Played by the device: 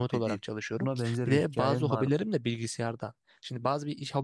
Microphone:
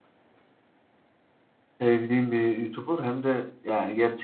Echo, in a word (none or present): none